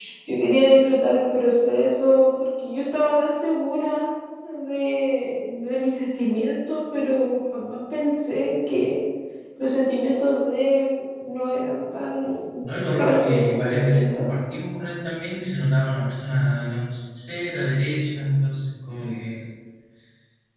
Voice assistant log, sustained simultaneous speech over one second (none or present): present